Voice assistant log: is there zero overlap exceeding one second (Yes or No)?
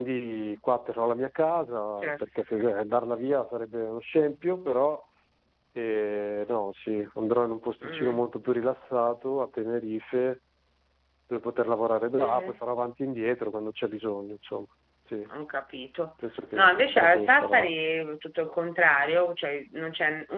No